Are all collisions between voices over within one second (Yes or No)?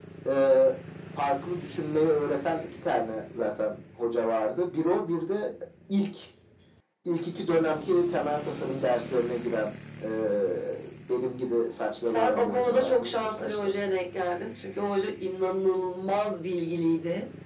No